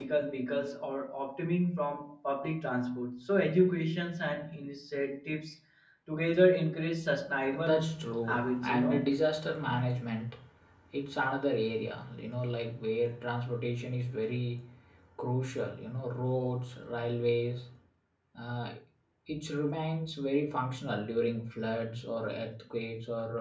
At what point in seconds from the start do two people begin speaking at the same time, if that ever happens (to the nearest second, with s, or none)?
8 s